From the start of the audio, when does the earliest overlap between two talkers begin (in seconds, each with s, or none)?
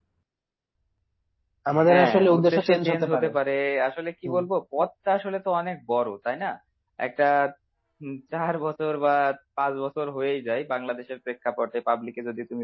1.8 s